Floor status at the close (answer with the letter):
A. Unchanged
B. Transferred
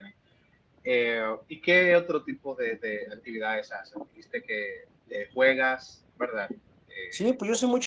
B